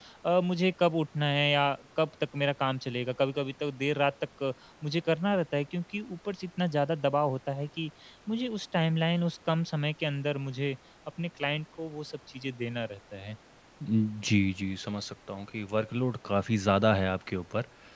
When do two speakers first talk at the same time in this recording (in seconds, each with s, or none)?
none